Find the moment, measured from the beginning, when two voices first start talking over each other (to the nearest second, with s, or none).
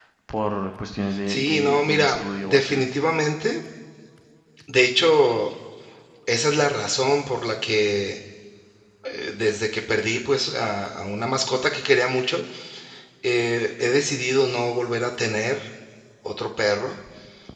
1 s